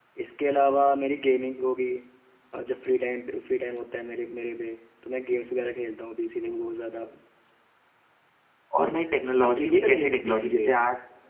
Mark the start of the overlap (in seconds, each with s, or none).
9.4 s